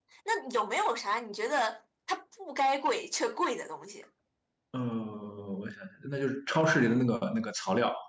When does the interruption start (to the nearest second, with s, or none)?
none